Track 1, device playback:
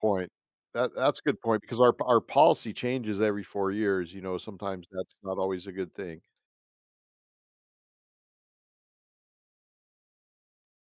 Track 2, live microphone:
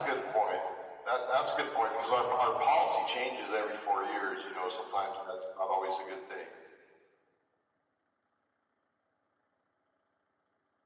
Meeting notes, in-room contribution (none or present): none